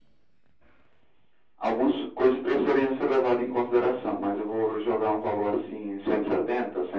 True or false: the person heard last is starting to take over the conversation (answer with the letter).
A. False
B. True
B